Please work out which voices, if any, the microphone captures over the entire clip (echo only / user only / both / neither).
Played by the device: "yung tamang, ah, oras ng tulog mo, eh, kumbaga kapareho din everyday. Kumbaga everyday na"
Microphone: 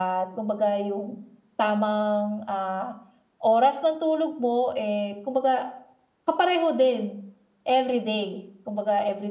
echo only